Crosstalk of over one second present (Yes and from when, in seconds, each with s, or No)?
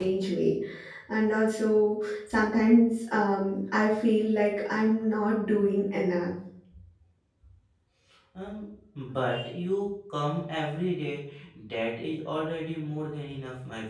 No